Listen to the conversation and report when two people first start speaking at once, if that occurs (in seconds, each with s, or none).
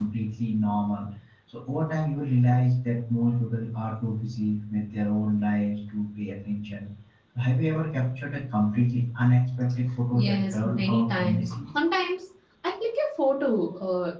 10.1 s